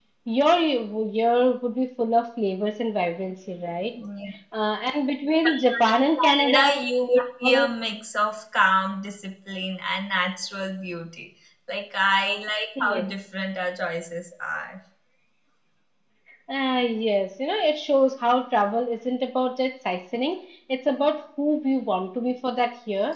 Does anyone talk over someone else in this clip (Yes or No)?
Yes